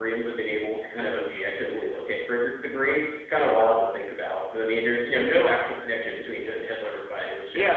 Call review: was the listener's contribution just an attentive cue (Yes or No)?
No